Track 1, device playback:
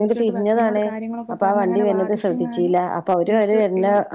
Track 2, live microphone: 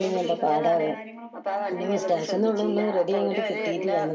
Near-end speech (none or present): present